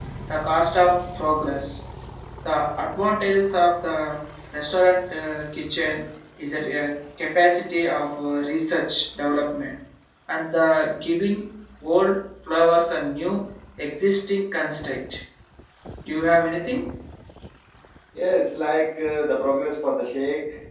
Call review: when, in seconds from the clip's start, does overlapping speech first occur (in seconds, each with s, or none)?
none